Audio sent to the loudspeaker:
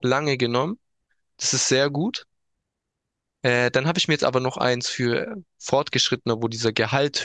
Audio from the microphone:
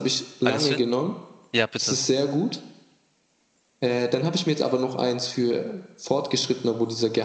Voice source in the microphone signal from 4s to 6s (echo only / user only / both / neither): echo only